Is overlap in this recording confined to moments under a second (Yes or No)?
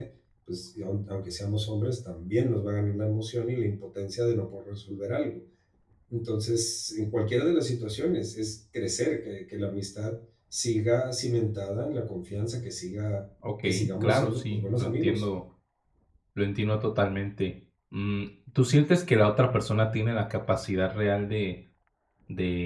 No